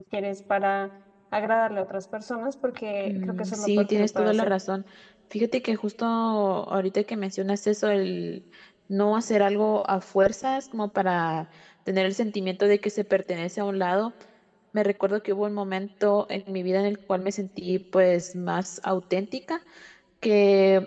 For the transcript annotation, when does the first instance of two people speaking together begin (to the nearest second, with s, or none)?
3 s